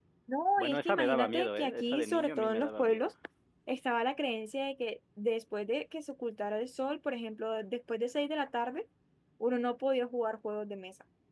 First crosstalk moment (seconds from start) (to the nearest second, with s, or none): 1 s